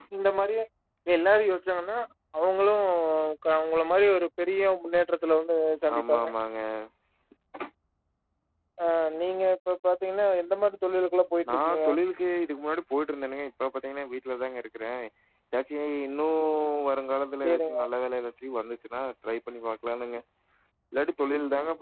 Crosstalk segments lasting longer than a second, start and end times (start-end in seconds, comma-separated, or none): none